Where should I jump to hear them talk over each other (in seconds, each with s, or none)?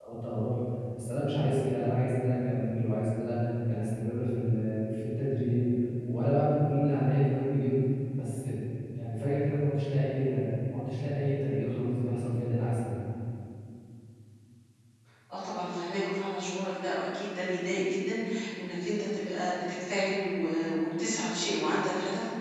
none